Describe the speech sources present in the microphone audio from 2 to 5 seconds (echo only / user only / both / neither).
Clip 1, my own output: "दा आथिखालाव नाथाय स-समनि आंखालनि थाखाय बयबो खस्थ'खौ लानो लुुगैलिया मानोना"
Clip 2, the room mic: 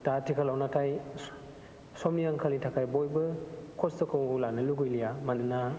echo only